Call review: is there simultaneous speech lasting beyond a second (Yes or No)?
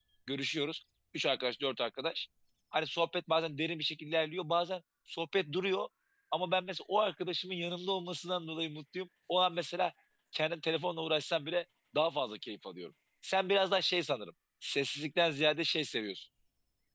No